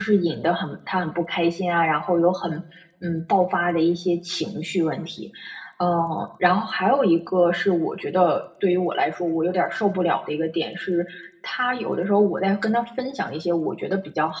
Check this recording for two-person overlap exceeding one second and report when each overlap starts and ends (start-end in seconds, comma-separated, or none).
none